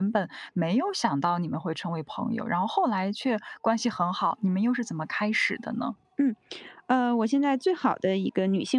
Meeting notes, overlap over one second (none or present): none